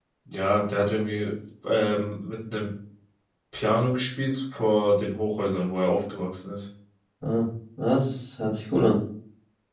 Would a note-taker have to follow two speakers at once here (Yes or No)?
No